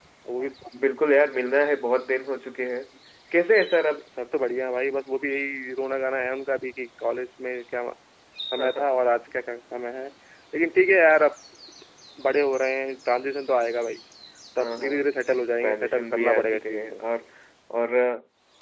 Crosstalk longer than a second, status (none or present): present